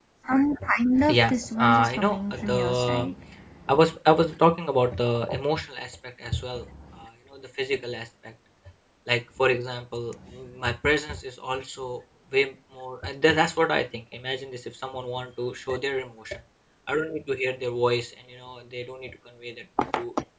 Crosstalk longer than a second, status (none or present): present